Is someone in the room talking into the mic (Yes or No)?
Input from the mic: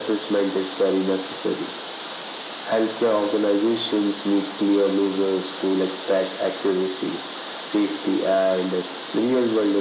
No